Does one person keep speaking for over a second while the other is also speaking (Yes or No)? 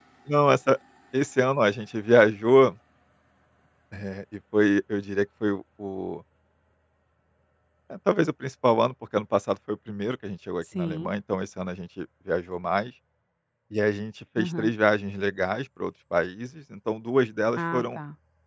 No